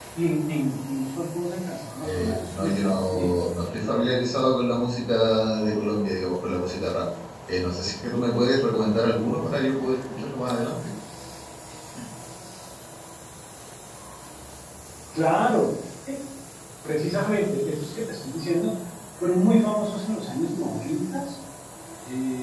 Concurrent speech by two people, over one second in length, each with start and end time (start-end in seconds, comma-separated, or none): 2.0-3.3